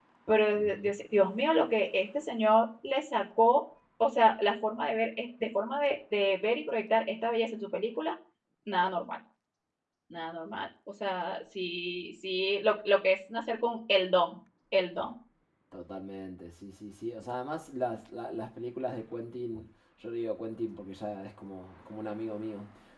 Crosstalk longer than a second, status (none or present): none